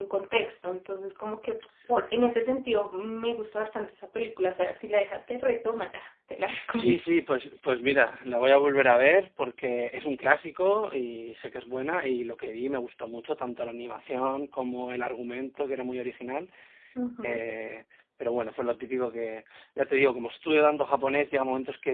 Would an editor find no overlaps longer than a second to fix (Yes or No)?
Yes